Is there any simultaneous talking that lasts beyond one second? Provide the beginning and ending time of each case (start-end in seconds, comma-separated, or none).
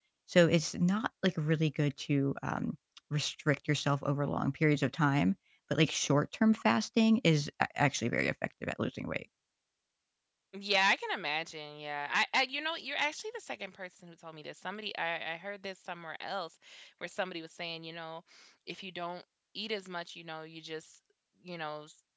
none